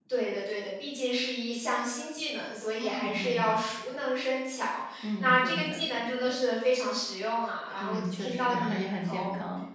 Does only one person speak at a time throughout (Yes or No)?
No